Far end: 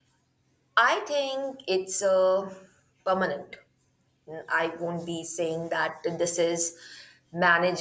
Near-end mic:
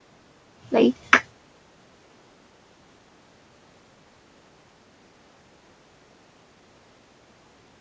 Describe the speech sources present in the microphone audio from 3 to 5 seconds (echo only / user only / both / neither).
neither